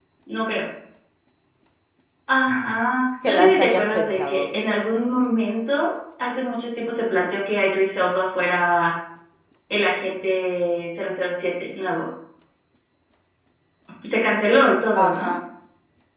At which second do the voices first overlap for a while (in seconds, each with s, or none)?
3.2 s